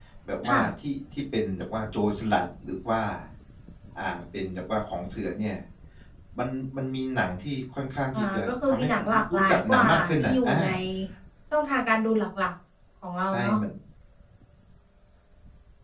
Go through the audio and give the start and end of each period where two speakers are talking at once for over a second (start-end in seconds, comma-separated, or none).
8.1-10.6